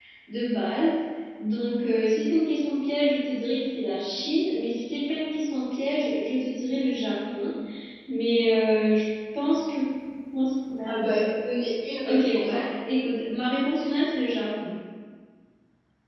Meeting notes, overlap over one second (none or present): none